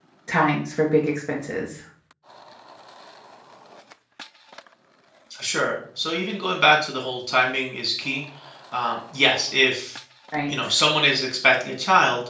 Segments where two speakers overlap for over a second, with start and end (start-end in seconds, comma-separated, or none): none